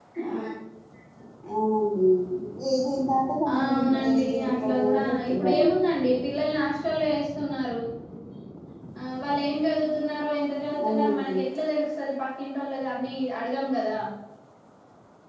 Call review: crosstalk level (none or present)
present